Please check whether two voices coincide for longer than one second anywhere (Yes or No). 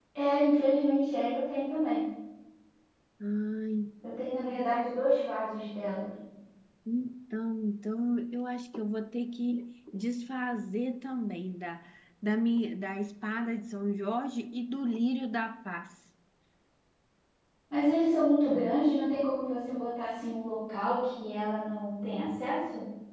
No